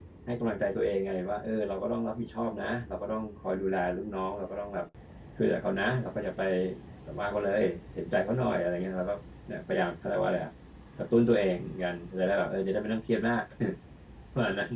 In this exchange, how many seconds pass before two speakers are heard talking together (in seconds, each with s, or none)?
none